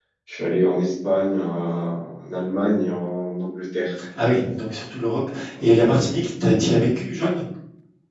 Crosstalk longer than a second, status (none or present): none